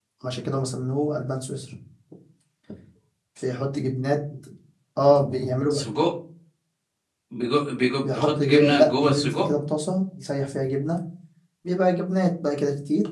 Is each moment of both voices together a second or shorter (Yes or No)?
No